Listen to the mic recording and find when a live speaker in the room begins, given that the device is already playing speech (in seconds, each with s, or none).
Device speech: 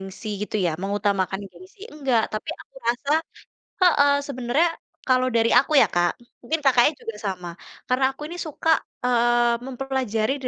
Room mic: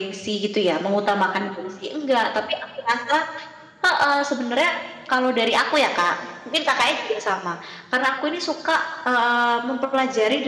none